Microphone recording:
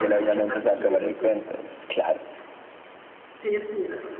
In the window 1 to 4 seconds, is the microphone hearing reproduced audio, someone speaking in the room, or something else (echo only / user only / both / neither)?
both